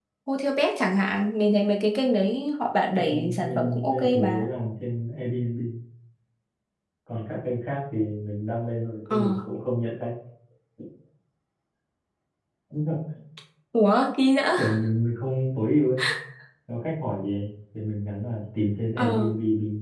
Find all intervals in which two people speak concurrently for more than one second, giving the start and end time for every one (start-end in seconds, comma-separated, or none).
3.0-4.5